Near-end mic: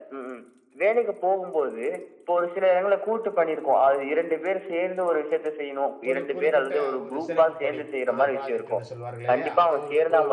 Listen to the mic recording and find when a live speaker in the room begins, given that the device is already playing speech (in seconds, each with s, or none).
6.1 s